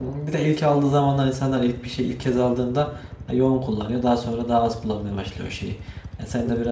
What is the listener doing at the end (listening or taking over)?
listening